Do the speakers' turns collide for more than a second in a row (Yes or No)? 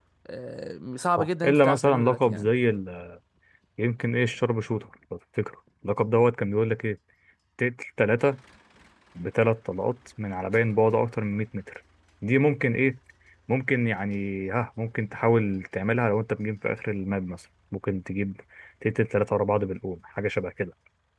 Yes